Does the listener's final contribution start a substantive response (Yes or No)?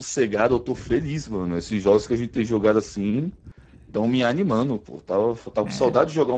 No